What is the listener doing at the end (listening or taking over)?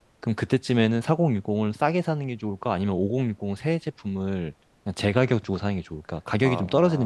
taking over